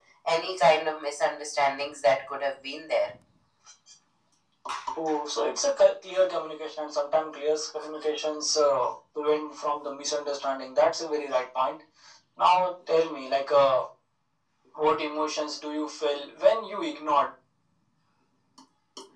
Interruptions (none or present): none